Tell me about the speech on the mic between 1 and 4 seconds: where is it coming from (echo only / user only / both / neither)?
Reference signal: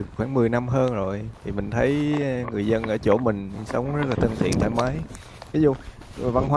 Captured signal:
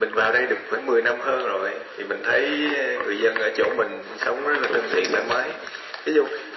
echo only